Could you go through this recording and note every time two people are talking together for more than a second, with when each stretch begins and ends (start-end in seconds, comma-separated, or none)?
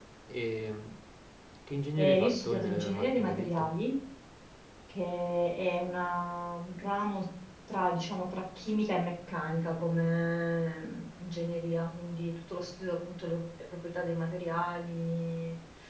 2.0-3.7